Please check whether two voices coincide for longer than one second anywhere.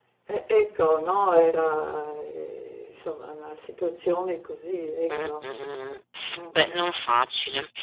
No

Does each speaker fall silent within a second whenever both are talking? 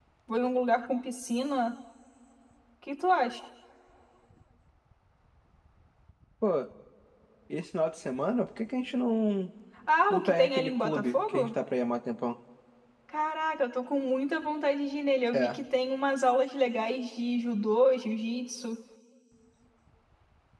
No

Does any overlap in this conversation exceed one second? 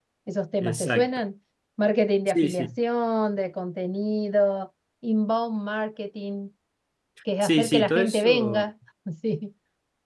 Yes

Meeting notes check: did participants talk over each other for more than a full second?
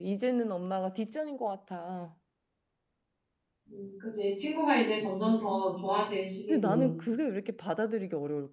No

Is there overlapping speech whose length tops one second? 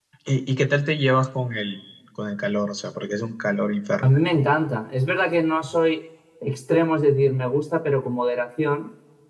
No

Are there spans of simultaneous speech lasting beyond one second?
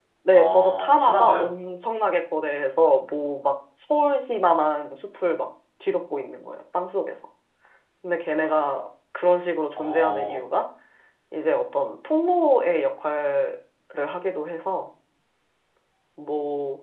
Yes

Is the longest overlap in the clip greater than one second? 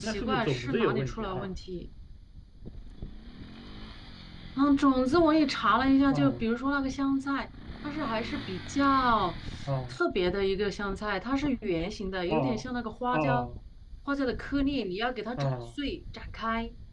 Yes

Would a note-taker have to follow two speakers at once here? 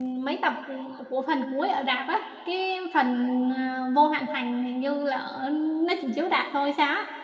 No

